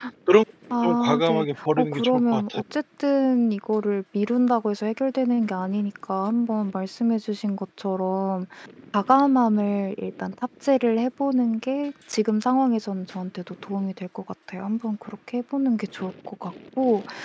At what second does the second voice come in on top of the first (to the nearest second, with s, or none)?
1 s